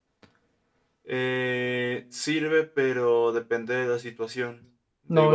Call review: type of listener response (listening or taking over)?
taking over